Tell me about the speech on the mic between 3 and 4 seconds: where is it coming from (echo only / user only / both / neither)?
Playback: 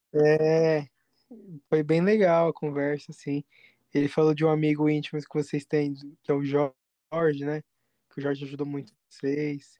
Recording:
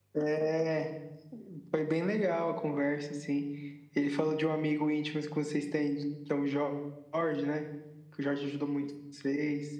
echo only